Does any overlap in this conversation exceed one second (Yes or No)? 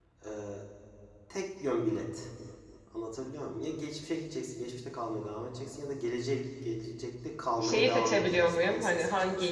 Yes